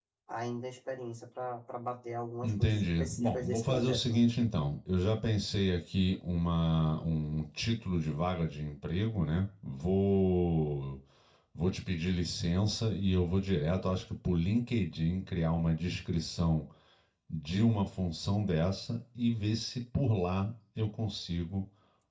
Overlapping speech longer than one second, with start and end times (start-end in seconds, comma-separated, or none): 2.4-4.2